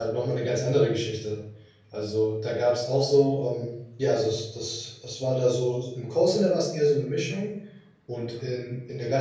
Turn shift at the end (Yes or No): No